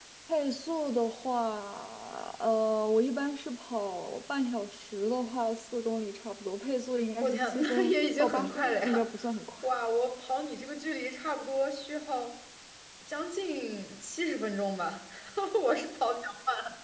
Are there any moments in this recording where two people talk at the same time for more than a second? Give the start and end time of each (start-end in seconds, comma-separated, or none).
7.2-9.1